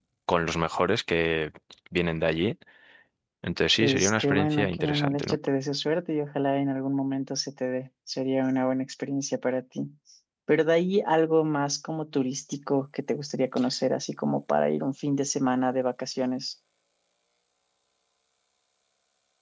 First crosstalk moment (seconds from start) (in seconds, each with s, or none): 3.8 s